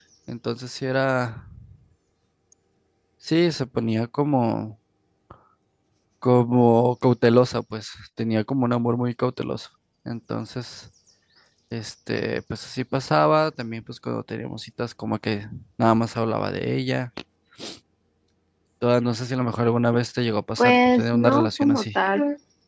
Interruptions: present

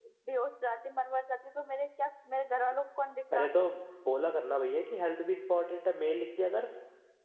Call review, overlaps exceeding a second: none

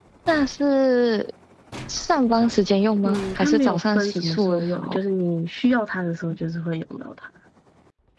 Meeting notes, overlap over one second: present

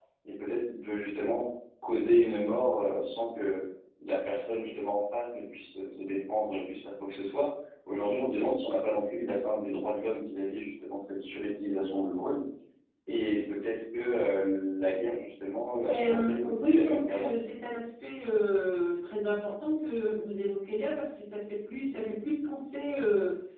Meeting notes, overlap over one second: present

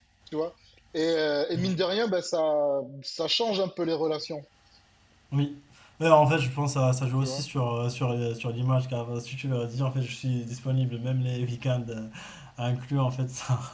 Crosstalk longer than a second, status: none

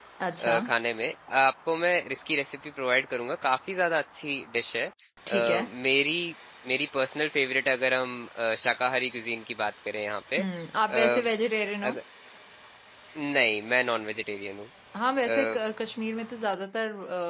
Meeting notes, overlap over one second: none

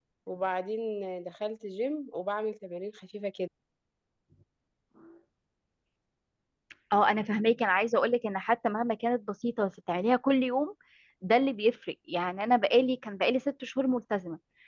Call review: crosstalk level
none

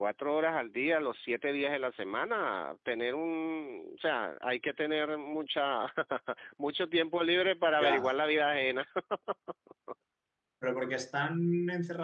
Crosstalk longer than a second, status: none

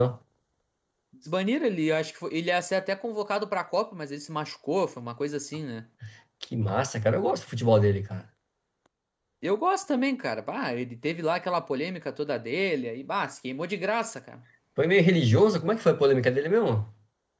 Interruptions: none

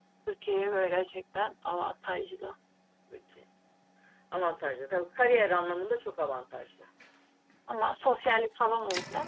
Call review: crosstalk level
none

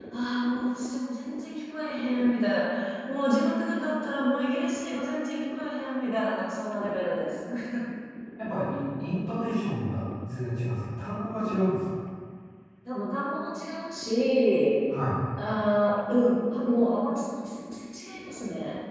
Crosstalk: none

